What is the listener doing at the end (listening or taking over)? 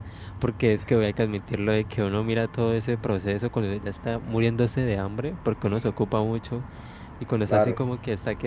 listening